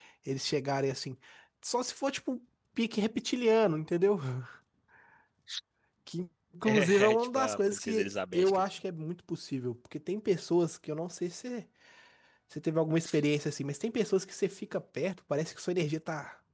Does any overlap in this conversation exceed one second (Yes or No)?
Yes